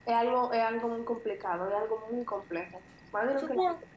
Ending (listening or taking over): taking over